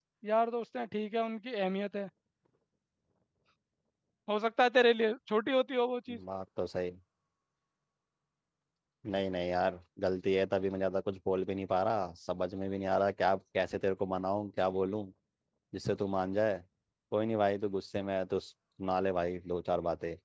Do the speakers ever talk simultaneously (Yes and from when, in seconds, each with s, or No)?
No